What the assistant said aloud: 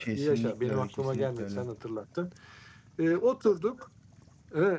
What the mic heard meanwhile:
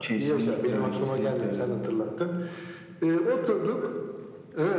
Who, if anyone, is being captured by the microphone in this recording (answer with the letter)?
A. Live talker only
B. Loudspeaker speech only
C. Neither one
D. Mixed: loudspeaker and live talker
B